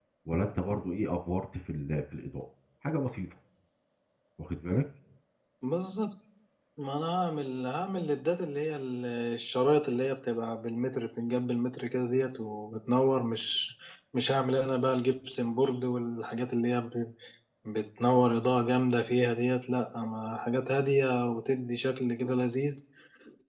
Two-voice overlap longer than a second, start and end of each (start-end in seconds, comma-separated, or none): none